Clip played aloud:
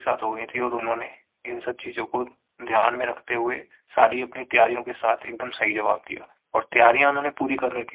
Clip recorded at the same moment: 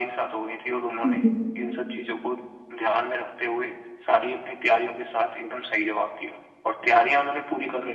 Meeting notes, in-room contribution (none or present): present